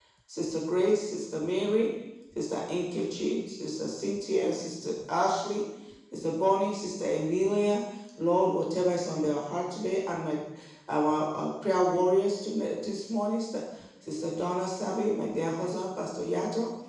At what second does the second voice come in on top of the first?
none

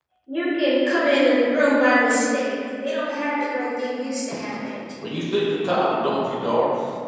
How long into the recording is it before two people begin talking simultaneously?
none

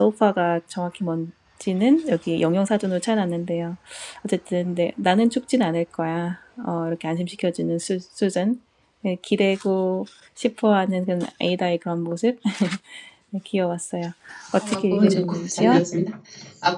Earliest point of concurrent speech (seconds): 14.6 s

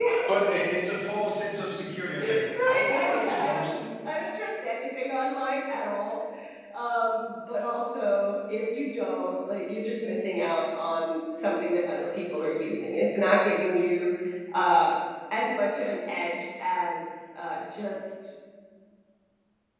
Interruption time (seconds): 2.2 s

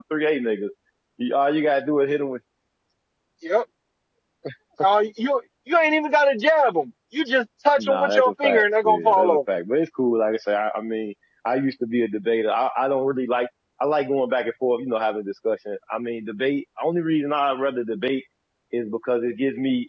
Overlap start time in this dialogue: 7.8 s

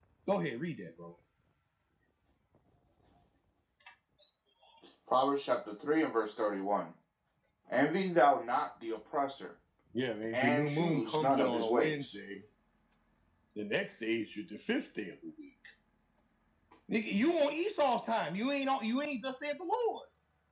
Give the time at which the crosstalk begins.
10.3 s

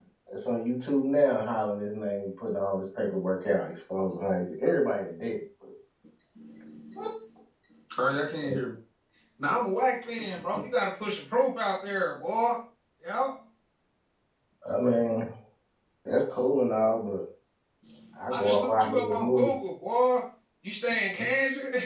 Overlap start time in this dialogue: 18.3 s

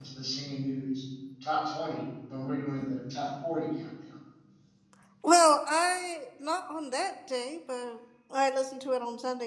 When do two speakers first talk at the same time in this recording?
none

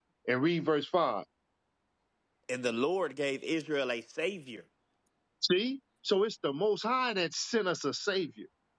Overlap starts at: none

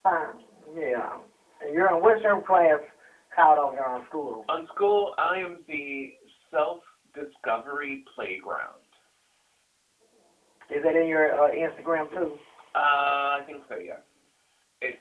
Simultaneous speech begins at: none

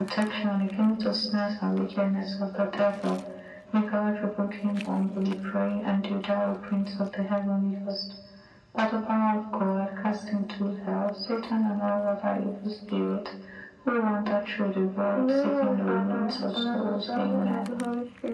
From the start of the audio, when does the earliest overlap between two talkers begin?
15.1 s

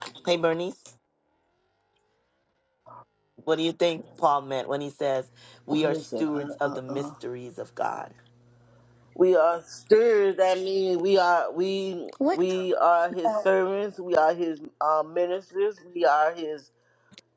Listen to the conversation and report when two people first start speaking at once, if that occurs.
5.7 s

